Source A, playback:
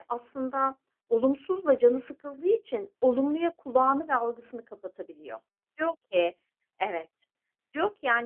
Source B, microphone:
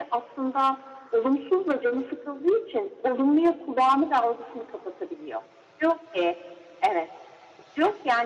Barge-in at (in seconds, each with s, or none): none